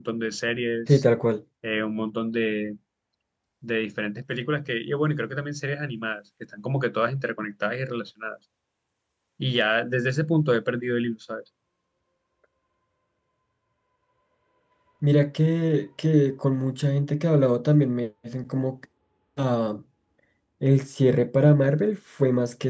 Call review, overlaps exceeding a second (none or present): none